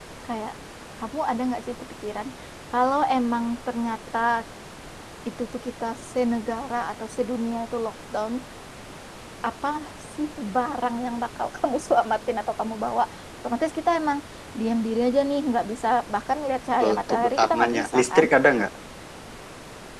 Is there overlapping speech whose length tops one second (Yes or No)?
Yes